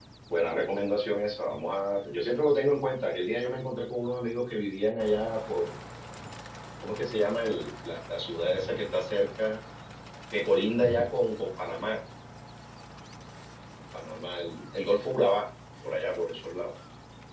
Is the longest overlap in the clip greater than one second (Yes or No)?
No